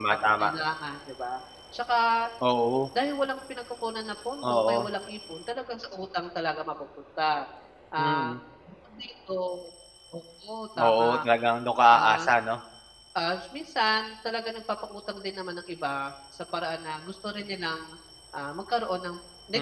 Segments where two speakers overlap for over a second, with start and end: none

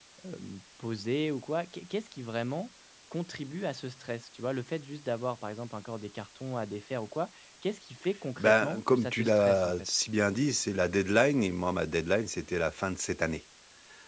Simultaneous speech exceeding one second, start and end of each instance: 8.4-9.7

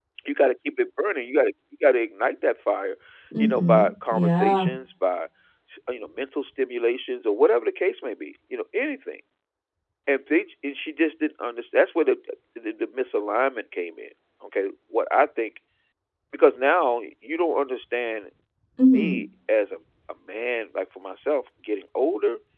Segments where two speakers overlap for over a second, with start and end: 3.4-4.7

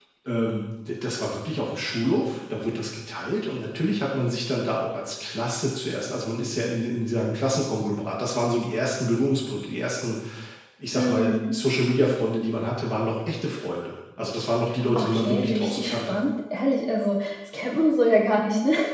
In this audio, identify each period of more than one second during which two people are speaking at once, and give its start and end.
15.0-16.2

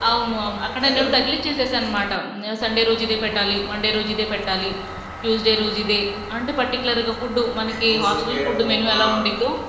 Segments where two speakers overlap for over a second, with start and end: 7.7-9.0

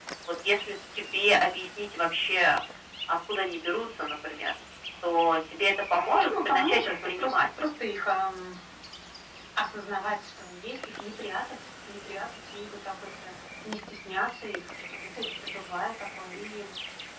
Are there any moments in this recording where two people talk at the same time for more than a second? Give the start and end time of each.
6.2-7.5

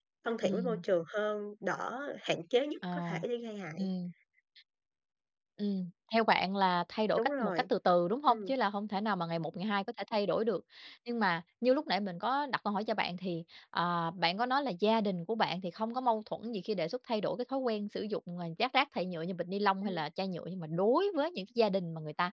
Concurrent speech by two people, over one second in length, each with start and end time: none

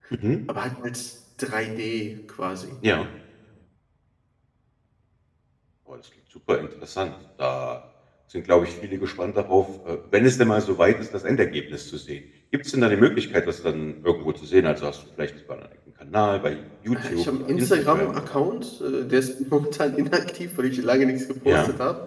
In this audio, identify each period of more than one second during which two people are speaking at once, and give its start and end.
16.9-18.4

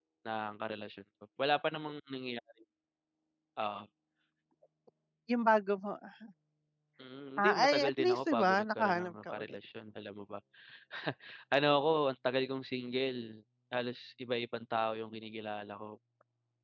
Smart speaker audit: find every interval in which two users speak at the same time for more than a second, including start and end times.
7.4-9.6

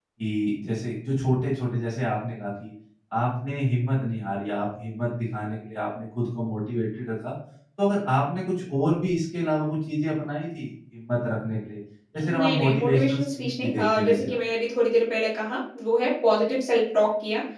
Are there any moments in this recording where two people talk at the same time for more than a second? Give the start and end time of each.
12.2-14.4

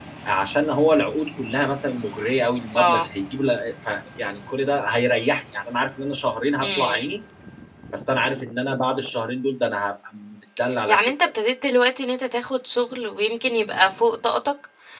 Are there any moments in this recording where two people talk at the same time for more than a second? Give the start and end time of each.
none

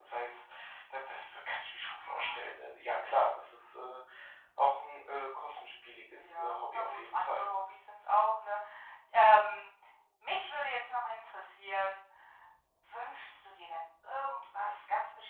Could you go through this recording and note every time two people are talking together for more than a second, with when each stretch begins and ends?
6.1-7.5

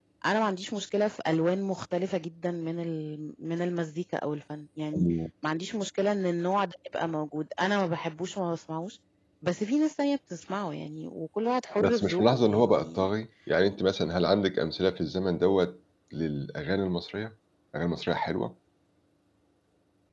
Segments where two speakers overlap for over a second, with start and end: 11.8-13.1

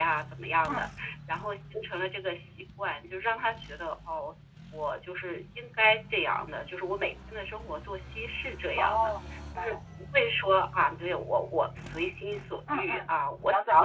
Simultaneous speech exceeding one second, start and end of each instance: none

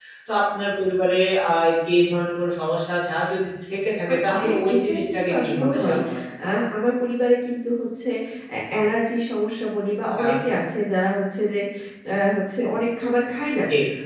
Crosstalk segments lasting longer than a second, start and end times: 4.1-6.0

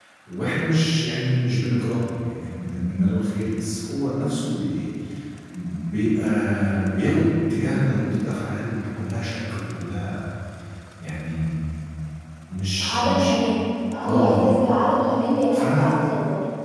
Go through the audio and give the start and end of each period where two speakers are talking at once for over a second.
none

